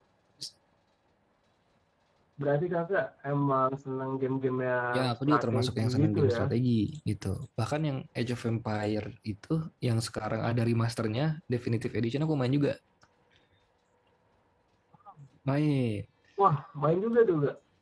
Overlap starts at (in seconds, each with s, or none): 4.9 s